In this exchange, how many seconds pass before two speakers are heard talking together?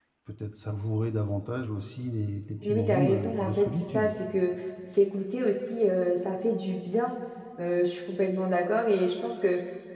2.6 s

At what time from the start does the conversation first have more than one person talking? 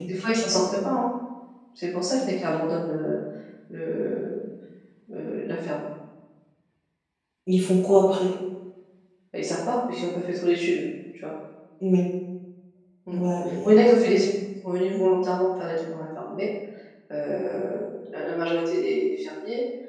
none

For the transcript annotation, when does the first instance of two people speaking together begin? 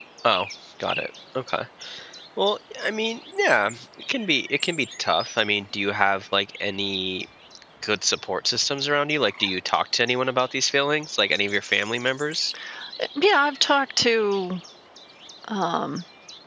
none

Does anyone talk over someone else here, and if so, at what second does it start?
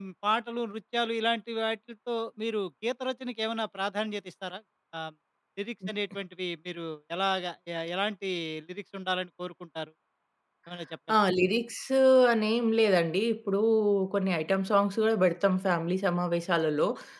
none

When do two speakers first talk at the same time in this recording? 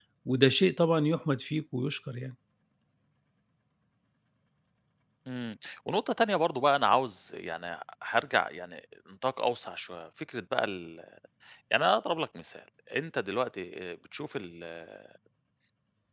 none

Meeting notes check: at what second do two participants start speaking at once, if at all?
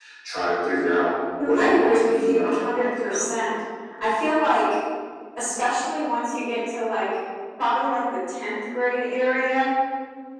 1.4 s

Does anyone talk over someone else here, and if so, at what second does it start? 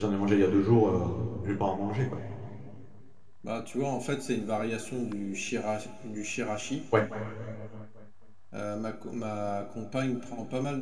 none

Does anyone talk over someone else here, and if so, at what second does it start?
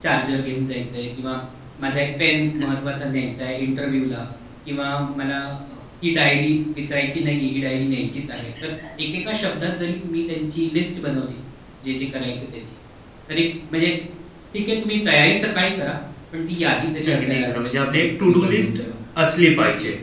17.1 s

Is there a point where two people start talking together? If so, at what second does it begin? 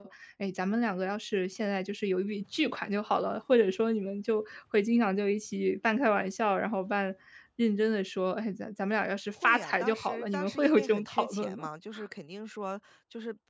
9.4 s

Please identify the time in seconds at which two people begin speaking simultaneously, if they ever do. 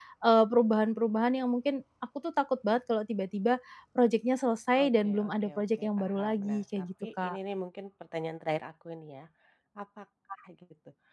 4.8 s

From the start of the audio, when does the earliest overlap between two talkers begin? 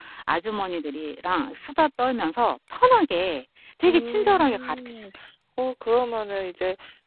3.8 s

